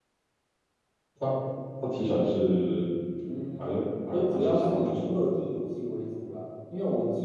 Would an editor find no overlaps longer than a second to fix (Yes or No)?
No